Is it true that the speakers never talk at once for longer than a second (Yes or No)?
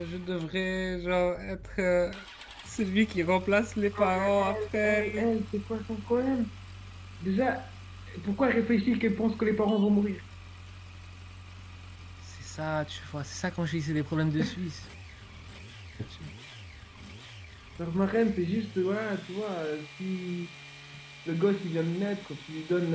No